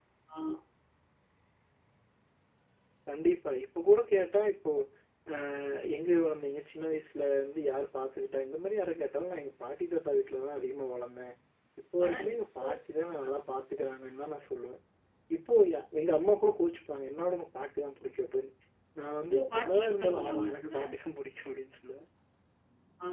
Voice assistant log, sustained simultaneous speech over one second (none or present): present